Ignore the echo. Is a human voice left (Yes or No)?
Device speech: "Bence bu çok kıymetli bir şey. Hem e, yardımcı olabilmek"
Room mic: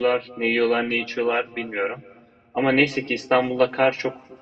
Yes